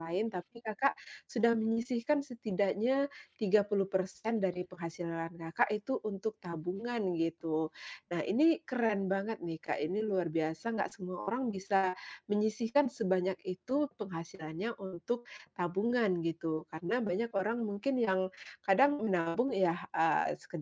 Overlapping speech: No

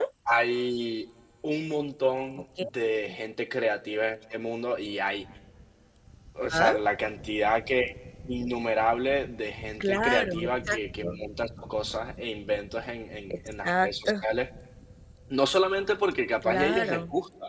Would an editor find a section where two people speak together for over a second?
Yes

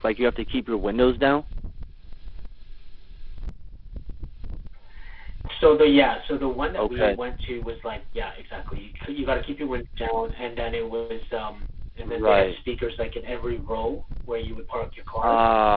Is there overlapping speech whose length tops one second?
No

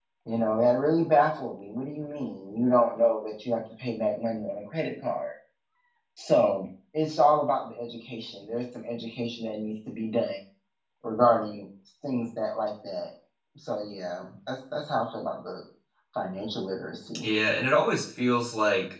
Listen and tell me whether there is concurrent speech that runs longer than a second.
No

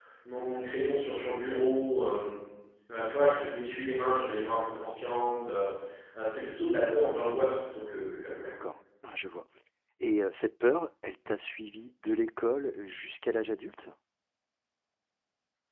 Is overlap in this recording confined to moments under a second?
Yes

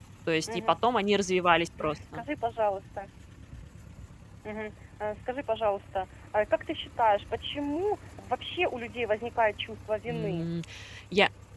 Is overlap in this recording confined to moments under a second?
Yes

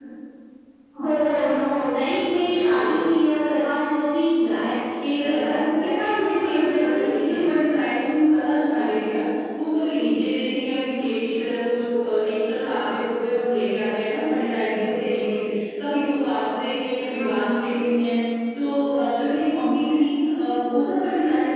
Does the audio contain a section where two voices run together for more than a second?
Yes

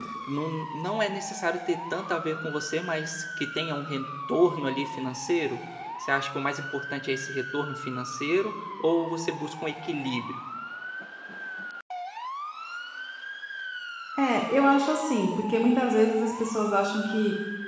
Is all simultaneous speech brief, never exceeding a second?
Yes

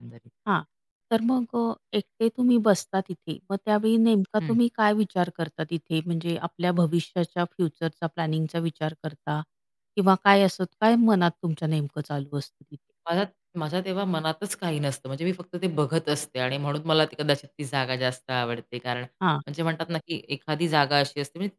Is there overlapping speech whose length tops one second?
No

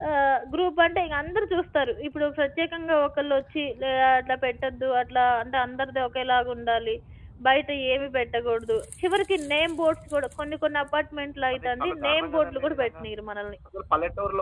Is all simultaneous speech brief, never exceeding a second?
No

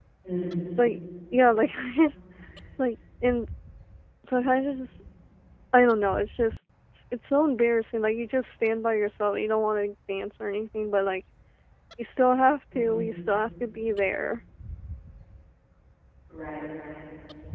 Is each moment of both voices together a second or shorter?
Yes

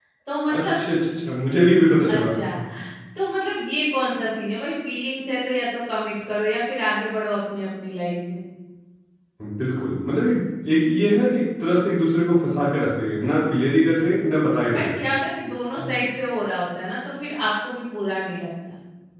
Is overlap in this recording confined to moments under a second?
Yes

